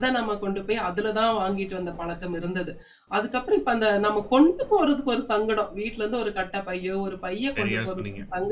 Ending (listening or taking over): listening